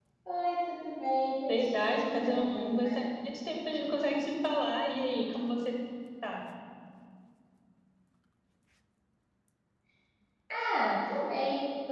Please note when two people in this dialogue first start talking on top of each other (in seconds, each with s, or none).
1.5 s